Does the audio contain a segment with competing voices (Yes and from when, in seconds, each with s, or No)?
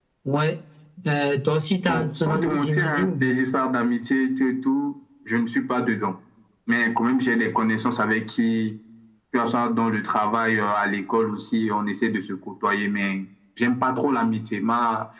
Yes, from 1.9 s